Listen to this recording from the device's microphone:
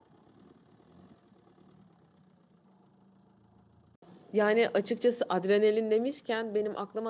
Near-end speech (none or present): present